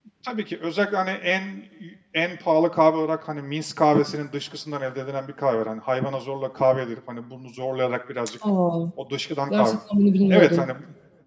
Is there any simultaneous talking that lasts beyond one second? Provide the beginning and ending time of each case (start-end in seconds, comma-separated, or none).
none